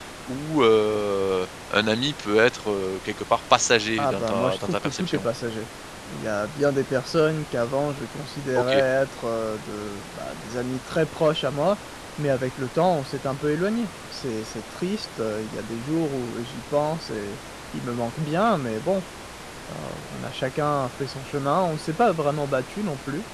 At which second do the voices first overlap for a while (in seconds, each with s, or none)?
4.0 s